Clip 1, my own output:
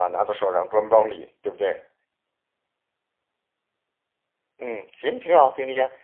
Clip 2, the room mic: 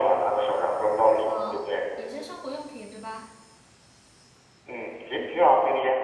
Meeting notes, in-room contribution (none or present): present